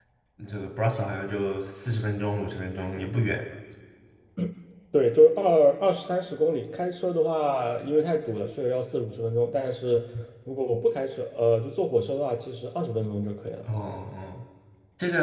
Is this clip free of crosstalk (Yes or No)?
Yes